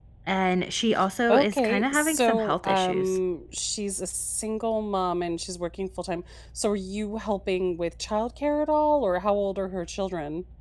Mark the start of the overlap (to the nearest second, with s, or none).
1 s